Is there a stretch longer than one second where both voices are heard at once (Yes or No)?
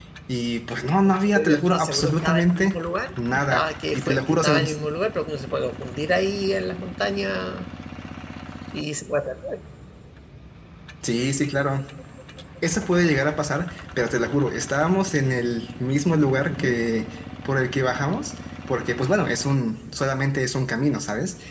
Yes